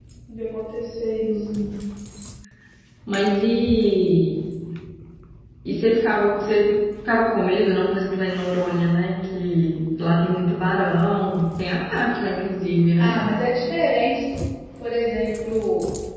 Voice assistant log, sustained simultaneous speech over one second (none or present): none